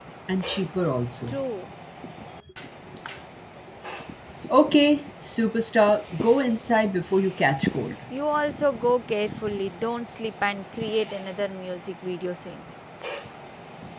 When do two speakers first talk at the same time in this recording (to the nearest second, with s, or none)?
none